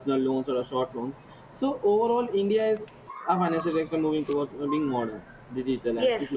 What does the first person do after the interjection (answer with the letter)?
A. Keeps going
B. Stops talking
B